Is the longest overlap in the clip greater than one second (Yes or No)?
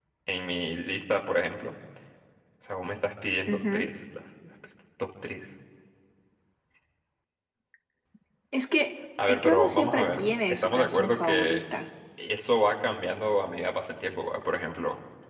Yes